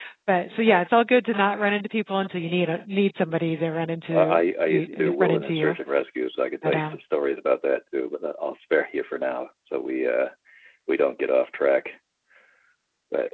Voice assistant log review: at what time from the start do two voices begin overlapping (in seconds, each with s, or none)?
4.1 s